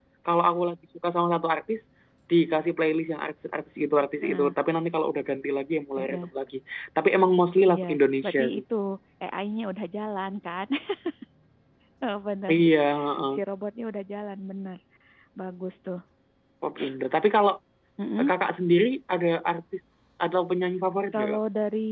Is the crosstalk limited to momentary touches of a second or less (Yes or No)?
Yes